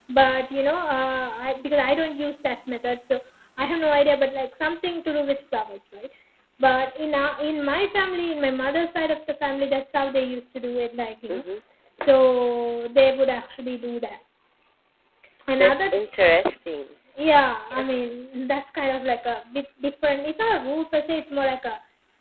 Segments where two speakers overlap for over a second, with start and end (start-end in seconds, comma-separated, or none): none